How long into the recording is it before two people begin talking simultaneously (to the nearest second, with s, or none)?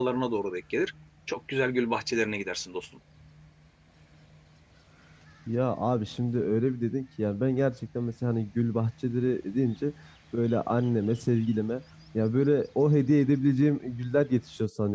none